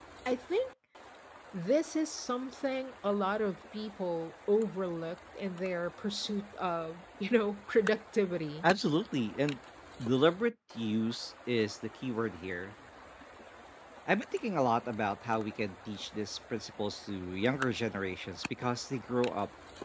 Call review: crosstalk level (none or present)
none